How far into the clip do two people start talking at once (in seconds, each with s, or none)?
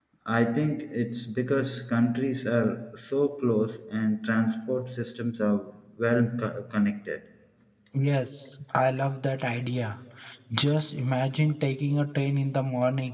none